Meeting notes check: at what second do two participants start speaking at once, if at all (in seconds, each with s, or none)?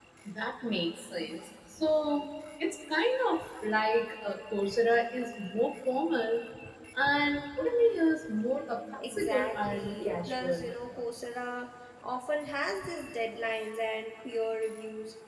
9.0 s